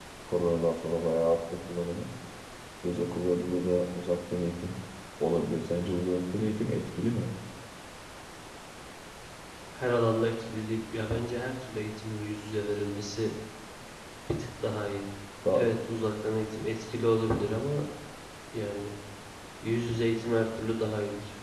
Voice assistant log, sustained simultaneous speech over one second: none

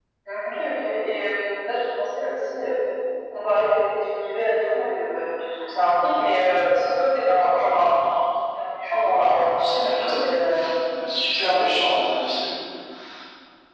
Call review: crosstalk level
present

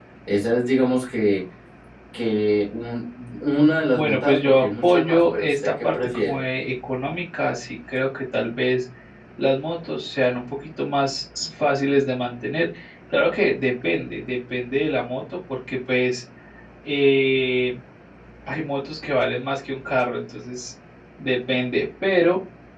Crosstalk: present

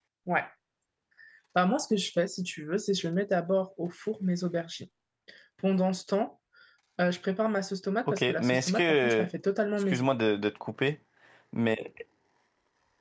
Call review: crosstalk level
present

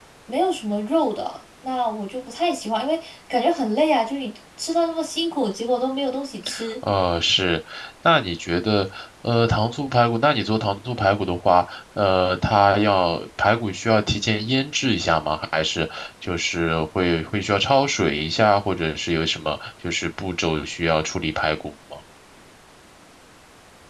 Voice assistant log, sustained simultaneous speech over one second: none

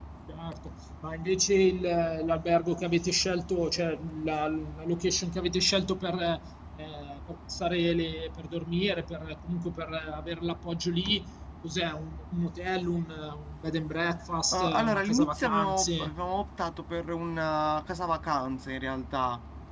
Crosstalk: present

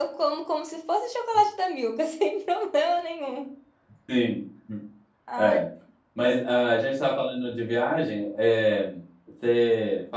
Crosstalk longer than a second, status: none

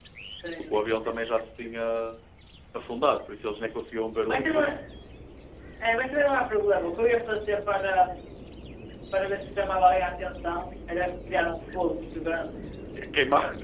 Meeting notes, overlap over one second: none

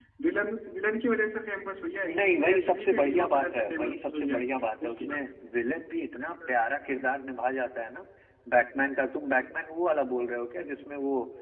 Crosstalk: present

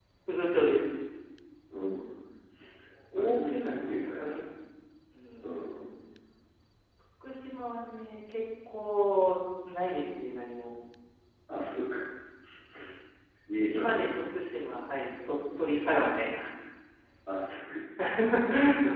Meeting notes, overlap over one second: present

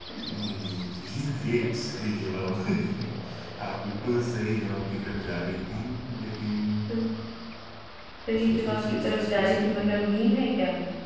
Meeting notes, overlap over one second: present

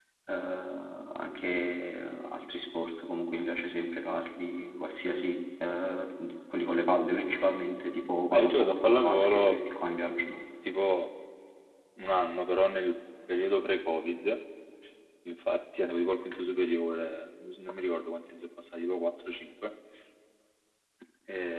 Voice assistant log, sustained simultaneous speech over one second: present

